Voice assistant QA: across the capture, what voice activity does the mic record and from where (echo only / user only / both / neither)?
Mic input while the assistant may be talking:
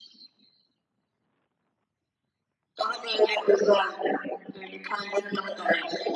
echo only